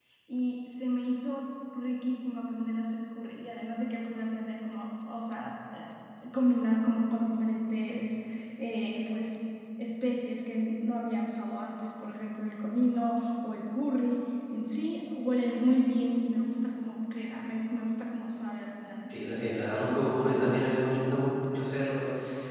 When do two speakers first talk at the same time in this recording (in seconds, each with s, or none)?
19.1 s